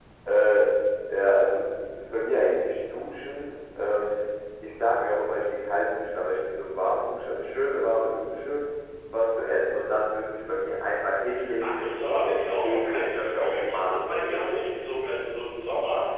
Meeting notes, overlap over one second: present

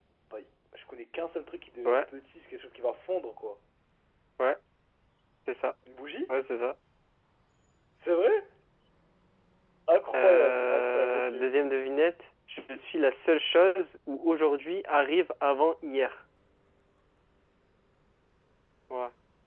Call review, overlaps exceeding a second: present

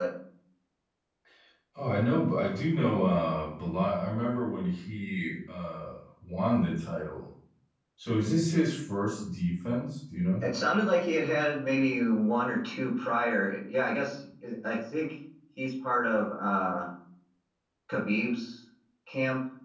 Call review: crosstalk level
none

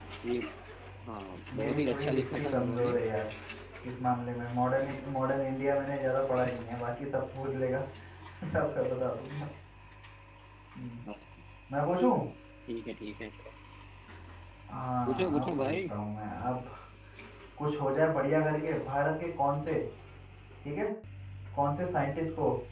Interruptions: present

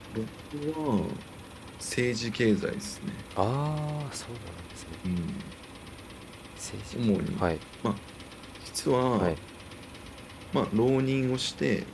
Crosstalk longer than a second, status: none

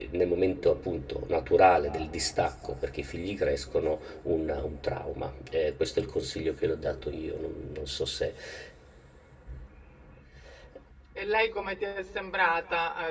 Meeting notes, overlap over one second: none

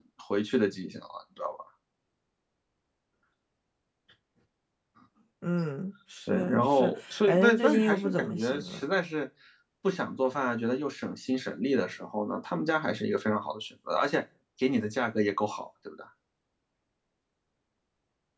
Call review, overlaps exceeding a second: present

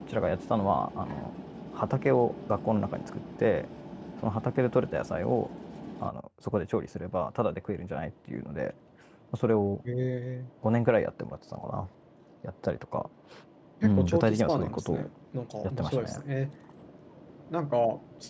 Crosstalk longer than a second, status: present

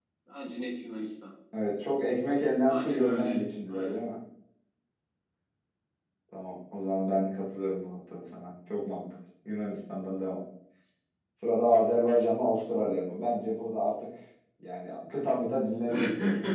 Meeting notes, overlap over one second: present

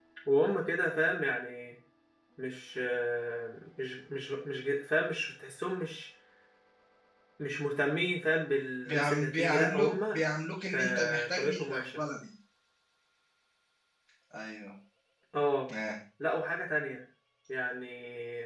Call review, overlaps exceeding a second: present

